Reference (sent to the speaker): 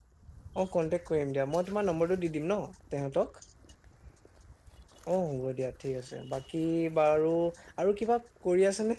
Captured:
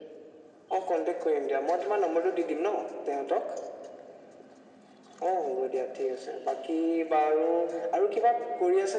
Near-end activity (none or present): none